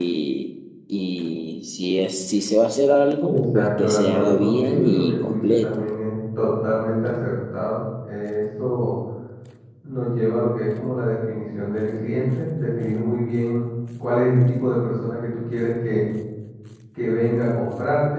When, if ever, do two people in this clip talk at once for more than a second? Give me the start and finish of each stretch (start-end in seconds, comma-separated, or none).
3.2-5.8